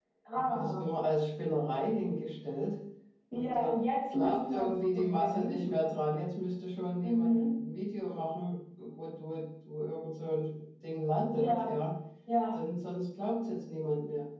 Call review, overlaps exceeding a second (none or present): present